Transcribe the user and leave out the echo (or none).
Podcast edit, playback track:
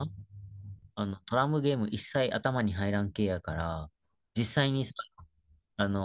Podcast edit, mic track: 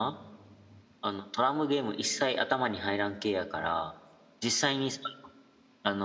none